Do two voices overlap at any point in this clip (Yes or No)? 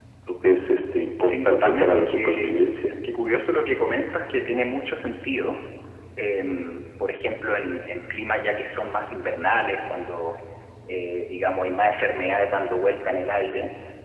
Yes